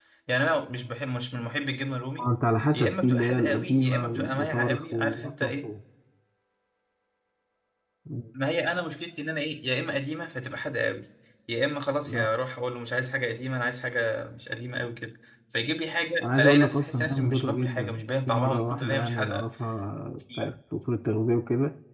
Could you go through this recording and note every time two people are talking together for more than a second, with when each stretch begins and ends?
2.7-5.7, 16.2-19.4

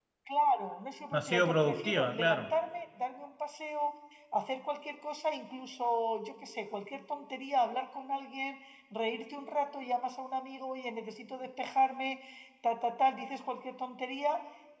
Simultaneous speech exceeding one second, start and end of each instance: 1.1-2.5

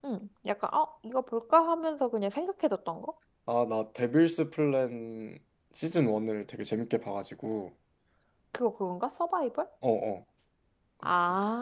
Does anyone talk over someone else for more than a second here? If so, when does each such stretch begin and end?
none

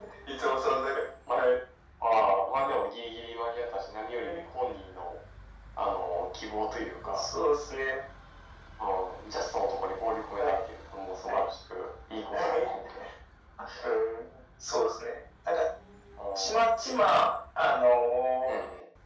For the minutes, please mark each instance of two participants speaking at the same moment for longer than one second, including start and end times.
none

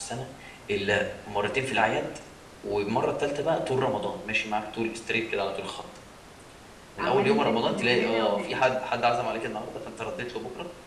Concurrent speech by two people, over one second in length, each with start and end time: 7.0-8.6

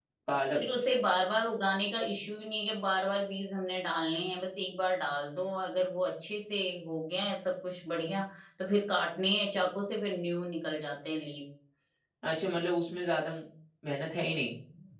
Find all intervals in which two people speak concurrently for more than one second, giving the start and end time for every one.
none

